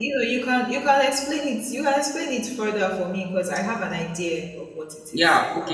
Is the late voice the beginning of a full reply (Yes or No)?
Yes